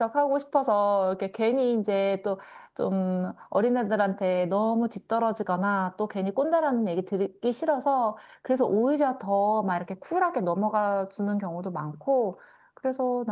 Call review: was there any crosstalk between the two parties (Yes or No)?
No